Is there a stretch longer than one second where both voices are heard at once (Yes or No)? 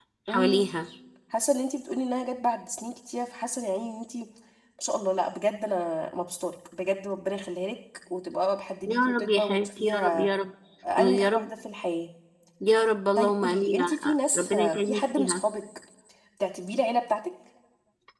Yes